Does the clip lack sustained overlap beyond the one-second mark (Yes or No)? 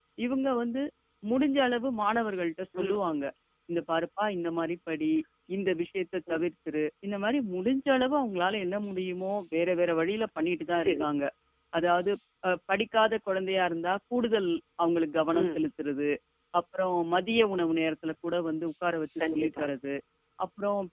Yes